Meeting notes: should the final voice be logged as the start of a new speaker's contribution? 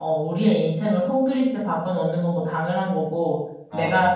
No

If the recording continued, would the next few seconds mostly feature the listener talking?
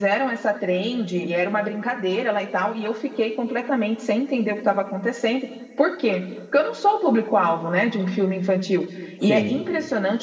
No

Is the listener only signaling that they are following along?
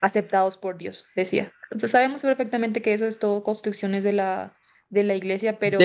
No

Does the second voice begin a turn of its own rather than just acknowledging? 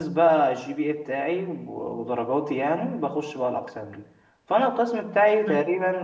No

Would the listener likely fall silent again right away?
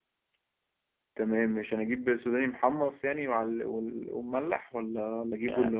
No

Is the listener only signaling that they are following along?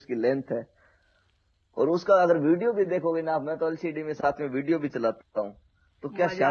No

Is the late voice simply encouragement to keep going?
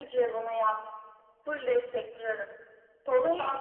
Yes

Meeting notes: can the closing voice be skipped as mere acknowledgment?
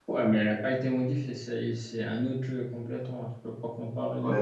No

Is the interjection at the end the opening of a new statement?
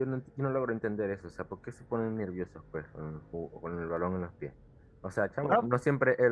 No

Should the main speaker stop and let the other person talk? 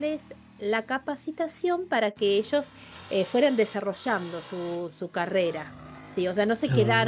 No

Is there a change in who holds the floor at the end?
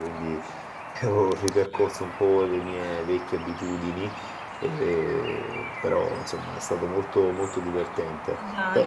Yes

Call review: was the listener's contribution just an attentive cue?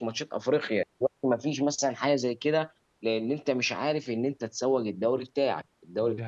Yes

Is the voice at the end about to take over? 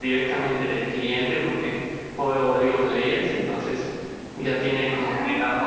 No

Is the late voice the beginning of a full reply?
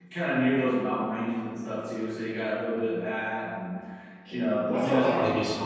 Yes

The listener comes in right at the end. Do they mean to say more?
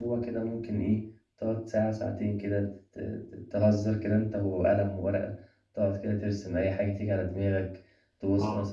No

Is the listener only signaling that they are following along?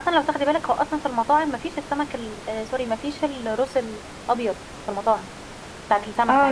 No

